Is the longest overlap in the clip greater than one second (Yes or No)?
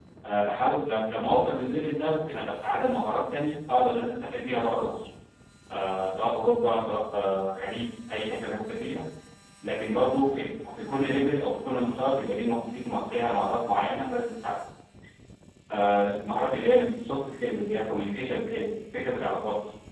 No